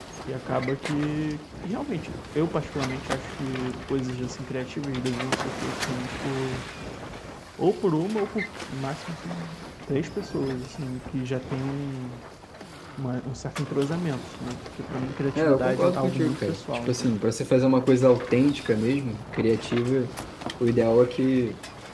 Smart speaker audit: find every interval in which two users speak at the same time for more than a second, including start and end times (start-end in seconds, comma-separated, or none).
15.4-17.2